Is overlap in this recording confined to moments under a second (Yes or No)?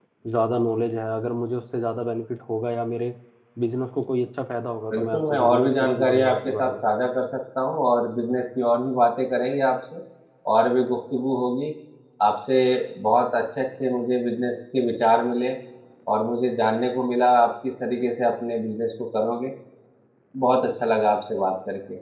No